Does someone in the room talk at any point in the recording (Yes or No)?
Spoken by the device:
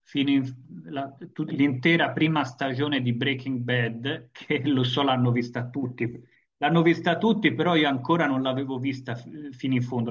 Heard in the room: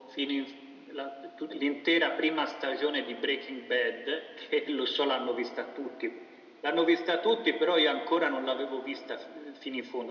No